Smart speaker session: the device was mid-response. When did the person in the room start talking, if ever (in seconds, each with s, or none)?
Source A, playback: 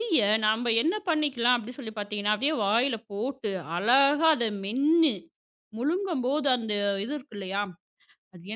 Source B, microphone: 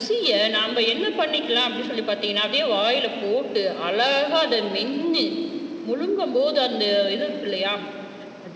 none